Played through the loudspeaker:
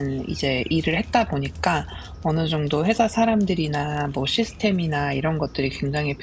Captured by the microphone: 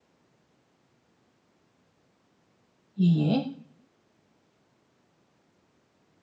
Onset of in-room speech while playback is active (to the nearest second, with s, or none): 3 s